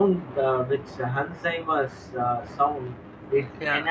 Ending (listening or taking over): listening